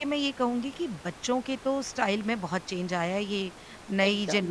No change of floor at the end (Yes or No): Yes